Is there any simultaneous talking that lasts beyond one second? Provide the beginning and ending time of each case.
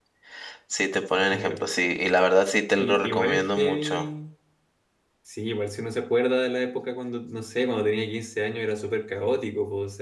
2.8-4.0

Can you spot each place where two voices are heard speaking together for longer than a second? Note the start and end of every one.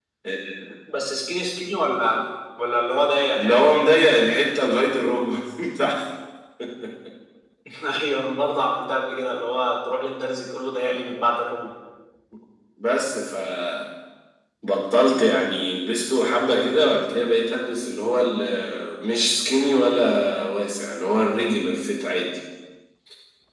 none

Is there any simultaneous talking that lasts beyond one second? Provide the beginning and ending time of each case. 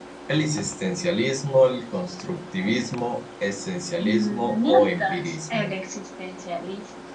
4.0-5.7

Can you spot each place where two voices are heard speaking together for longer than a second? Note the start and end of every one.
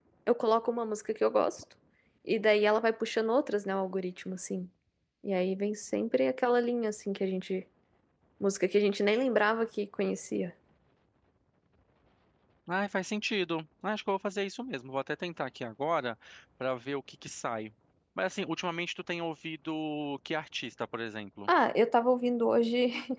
none

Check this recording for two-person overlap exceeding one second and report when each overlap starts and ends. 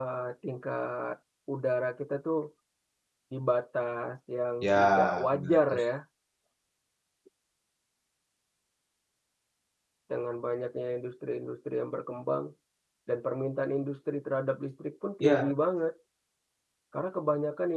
4.6-5.8

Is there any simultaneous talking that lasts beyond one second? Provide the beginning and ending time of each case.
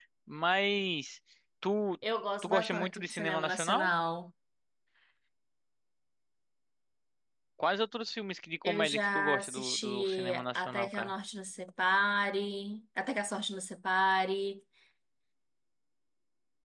2.4-3.9, 8.6-11.1

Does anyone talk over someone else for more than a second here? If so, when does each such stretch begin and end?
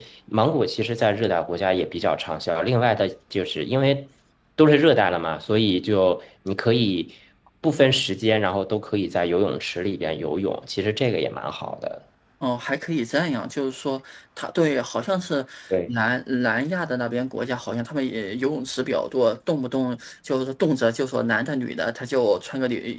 none

